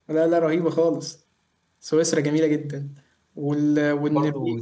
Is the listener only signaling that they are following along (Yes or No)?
No